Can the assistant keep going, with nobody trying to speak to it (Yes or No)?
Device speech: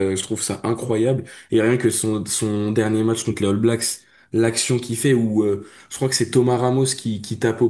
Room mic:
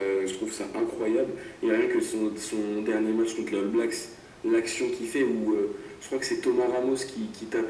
Yes